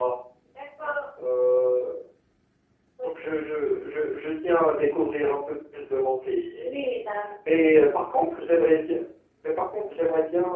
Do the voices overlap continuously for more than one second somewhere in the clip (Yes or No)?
No